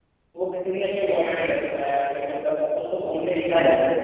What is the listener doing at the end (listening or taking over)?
listening